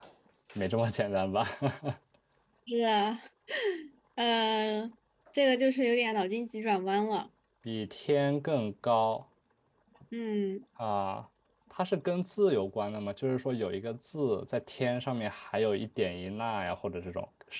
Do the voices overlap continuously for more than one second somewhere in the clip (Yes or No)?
No